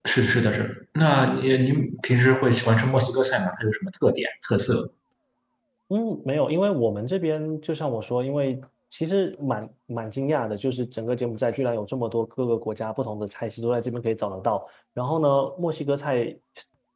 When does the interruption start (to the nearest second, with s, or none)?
none